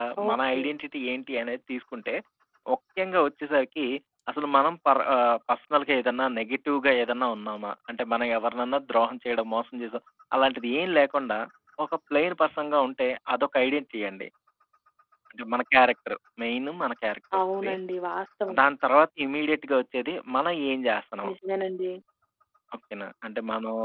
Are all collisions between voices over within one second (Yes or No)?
Yes